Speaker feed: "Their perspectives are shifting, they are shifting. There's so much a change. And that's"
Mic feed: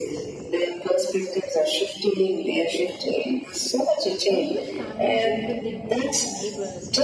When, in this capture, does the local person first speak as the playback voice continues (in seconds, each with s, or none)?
4.2 s